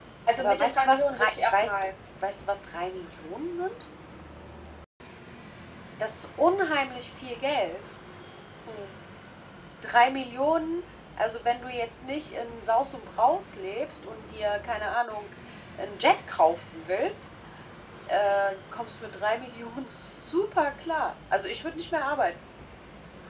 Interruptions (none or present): present